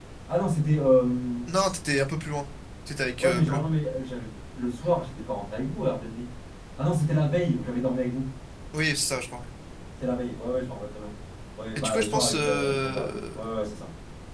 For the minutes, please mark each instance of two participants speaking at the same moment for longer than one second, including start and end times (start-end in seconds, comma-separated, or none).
11.8-13.4